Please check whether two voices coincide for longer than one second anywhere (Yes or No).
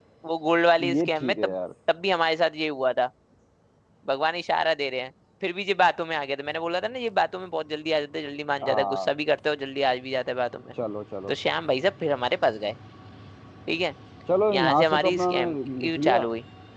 Yes